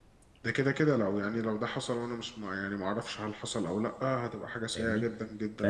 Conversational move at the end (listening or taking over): taking over